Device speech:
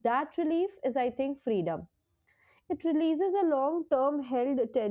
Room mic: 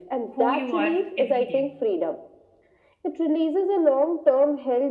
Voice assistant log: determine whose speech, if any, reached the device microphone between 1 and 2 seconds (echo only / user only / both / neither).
both